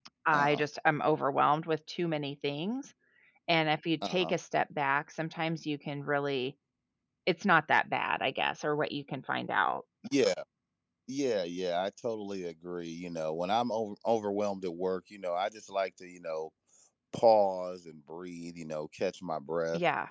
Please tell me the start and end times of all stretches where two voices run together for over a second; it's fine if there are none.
none

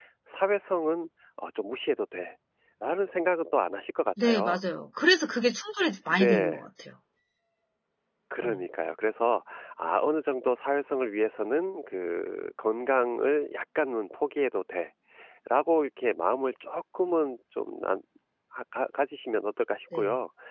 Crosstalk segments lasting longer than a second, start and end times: none

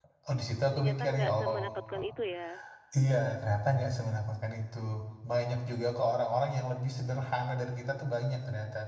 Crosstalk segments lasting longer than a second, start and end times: 0.7-2.0

